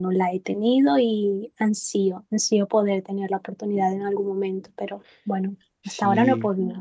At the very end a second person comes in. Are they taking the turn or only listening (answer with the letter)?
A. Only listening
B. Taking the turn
B